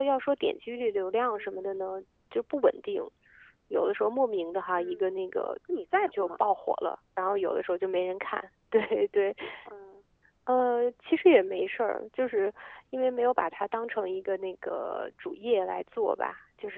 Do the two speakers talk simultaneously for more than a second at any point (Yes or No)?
No